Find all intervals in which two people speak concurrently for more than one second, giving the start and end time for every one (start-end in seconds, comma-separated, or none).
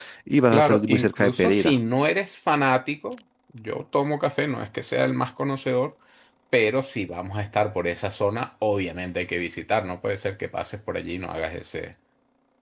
0.5-1.7